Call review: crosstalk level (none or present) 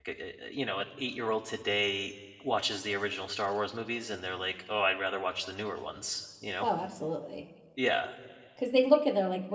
none